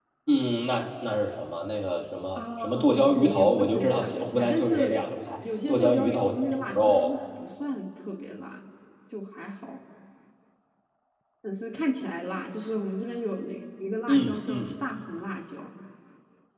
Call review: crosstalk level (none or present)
present